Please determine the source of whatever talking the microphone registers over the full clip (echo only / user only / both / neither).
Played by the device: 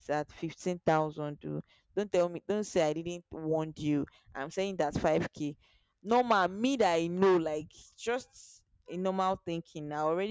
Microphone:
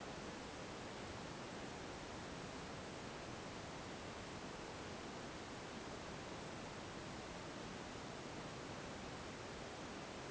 neither